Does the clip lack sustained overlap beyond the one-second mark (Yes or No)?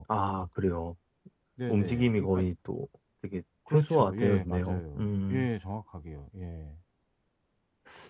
No